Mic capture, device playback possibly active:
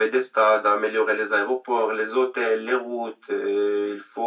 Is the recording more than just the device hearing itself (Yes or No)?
No